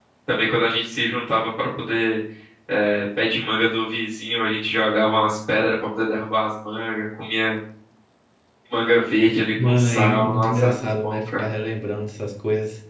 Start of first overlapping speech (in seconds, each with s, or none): 9.6 s